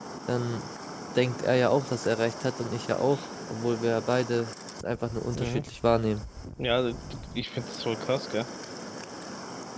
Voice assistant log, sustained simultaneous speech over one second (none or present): none